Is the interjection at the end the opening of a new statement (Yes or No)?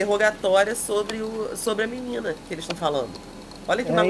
Yes